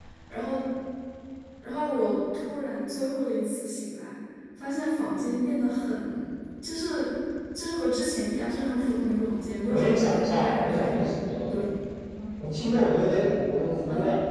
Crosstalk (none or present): present